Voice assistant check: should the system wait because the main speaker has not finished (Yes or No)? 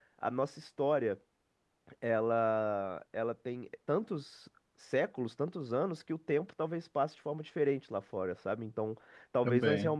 Yes